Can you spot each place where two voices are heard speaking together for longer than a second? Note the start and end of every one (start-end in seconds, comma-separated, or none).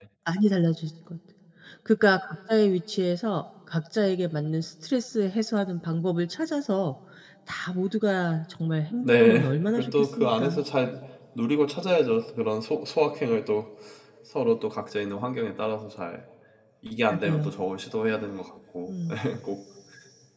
9.0-10.6